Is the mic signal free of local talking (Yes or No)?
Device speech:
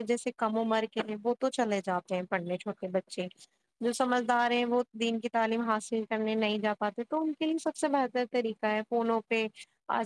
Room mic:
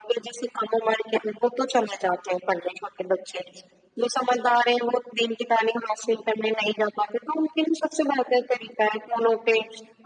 Yes